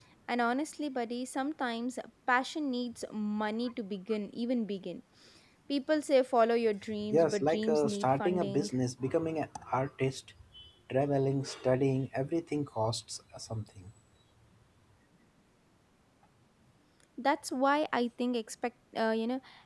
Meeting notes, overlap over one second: present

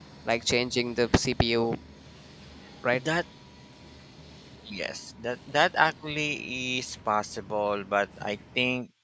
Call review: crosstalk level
none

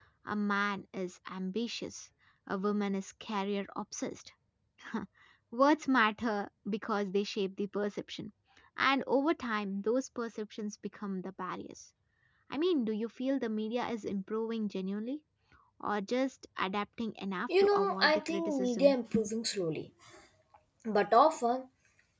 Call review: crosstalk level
present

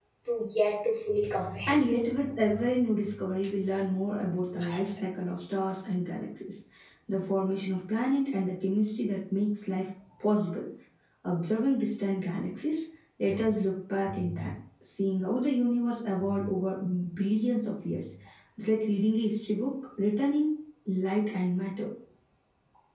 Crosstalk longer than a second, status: none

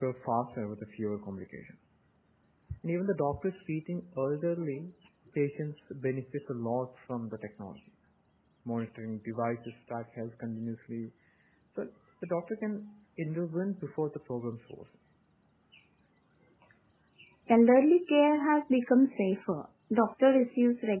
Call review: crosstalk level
none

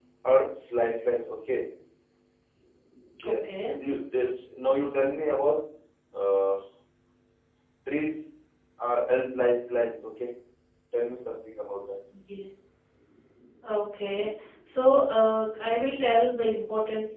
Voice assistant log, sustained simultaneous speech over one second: none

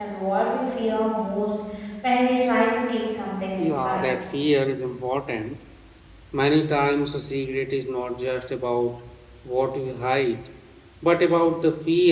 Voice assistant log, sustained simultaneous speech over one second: none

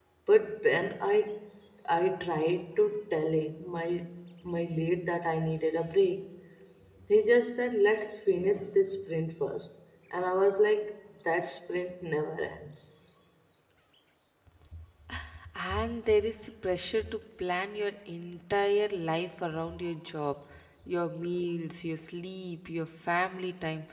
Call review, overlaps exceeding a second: none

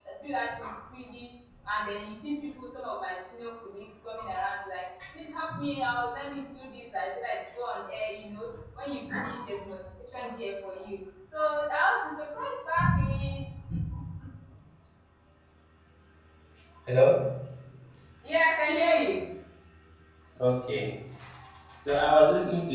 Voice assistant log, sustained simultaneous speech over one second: none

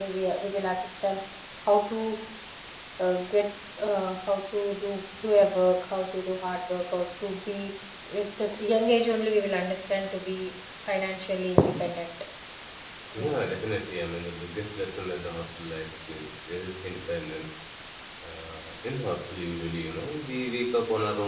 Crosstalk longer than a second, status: none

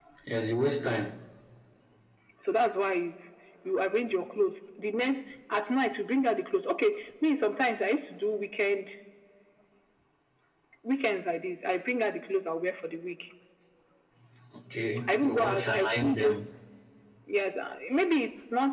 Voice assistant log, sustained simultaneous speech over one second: present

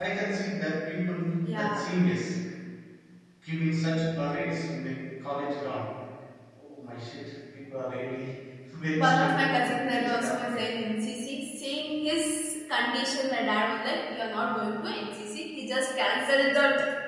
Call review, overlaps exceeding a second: present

